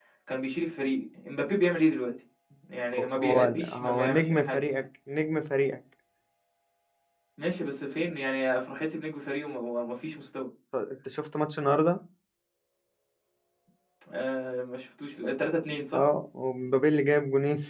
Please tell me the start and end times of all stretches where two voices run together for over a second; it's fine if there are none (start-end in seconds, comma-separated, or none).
2.9-4.6